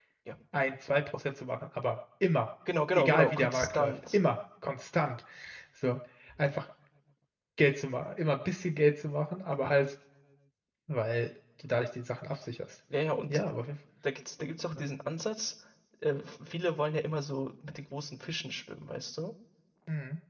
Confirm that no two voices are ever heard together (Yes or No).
No